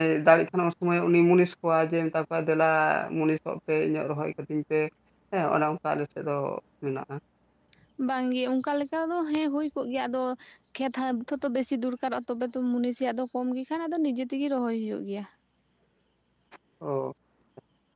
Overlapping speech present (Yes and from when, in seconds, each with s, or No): No